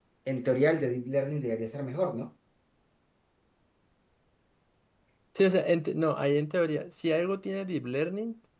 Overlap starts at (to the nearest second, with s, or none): none